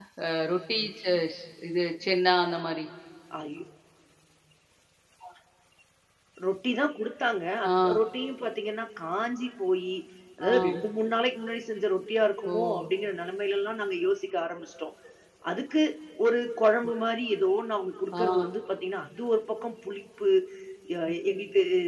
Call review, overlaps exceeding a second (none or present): none